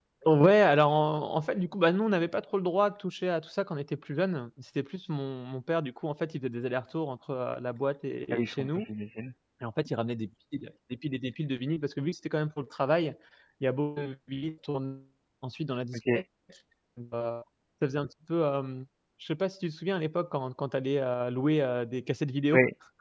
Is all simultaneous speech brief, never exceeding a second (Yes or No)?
Yes